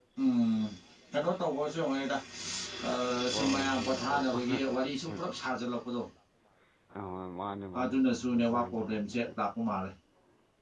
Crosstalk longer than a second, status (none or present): present